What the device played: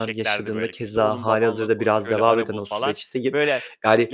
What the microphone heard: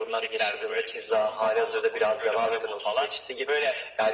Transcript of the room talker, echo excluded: none

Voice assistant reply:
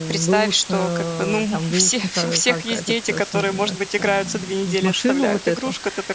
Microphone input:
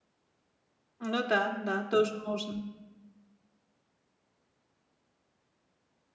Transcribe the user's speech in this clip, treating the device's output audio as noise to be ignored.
Ну да, да, тоже можно.

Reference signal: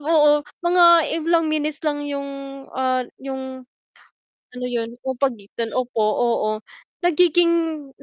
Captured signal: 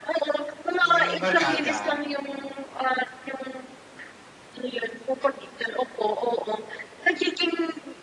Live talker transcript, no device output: Hmm, barkada, oo.

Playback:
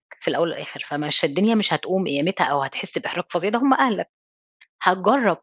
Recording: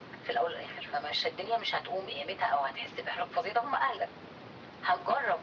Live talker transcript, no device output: none

